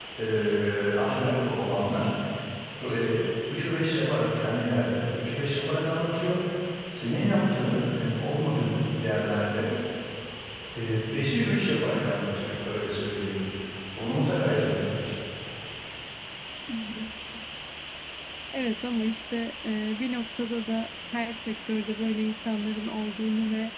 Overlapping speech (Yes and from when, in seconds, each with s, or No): No